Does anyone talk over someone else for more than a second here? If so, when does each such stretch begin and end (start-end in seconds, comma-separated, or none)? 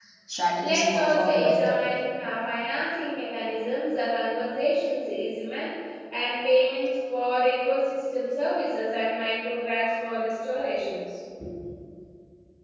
0.6-1.8